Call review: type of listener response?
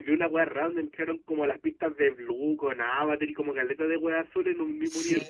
taking over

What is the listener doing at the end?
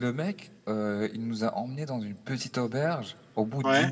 listening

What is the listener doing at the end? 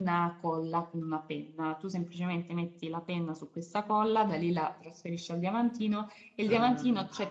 listening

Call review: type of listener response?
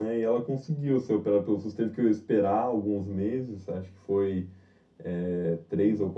listening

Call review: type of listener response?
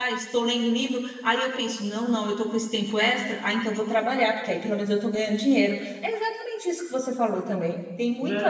taking over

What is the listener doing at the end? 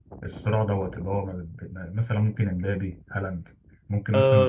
taking over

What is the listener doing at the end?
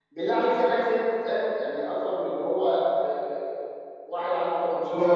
taking over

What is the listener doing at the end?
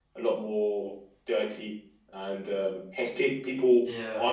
listening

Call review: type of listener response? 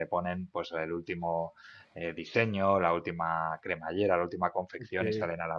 listening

